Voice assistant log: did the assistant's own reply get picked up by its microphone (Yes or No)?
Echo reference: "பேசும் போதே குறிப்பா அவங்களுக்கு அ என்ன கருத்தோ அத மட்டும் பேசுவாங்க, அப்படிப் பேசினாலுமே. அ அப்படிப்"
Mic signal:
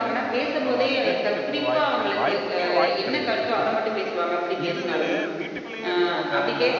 Yes